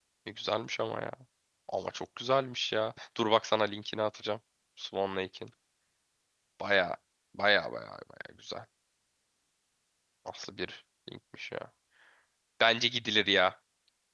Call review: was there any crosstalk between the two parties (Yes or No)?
No